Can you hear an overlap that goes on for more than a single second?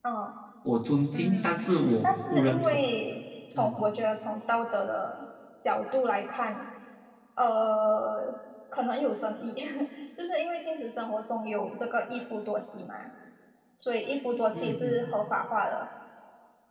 Yes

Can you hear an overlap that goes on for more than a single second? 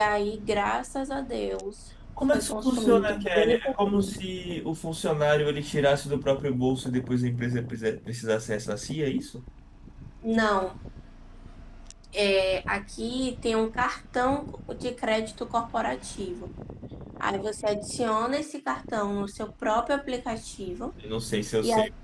Yes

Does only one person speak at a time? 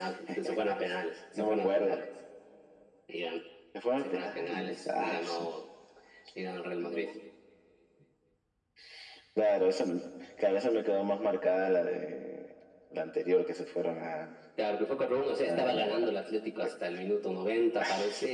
No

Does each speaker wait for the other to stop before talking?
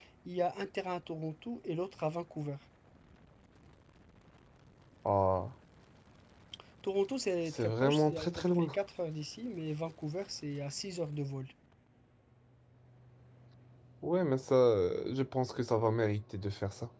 No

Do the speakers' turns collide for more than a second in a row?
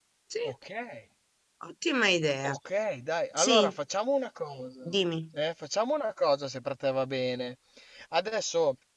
No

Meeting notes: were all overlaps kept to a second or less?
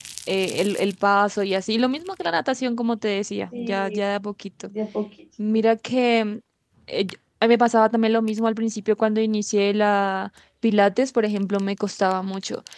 Yes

